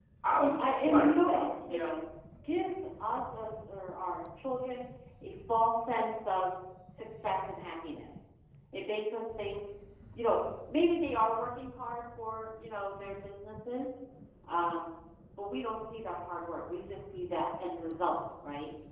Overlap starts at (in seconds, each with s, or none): 0.6 s